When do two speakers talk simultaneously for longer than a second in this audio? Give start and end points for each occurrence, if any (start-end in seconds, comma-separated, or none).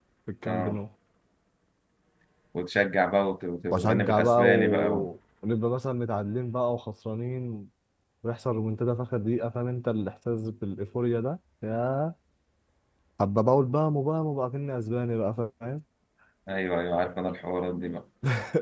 3.7-5.1